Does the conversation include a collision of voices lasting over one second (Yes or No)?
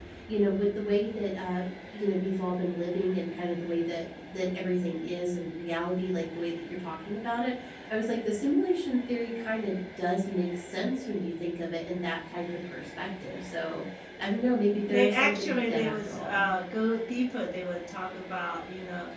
Yes